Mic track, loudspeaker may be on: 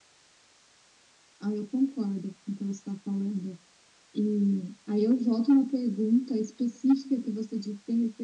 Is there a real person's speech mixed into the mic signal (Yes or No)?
Yes